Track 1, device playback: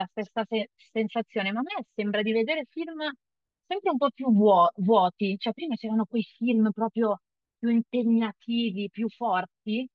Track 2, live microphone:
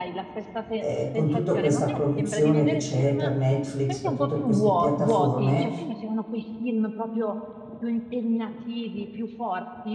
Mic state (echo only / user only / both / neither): both